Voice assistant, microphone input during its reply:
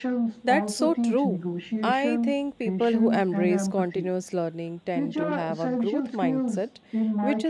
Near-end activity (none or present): present